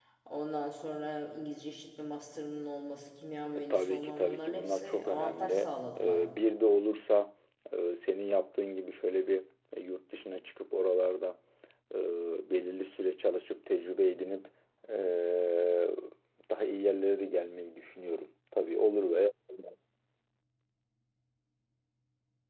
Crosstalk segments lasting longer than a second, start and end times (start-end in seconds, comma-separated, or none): 3.7-6.3